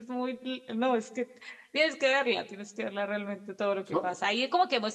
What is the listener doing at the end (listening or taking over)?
listening